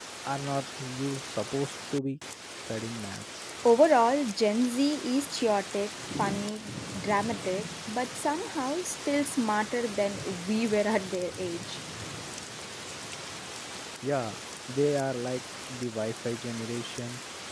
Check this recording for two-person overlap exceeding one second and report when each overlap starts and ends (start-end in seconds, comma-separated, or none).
none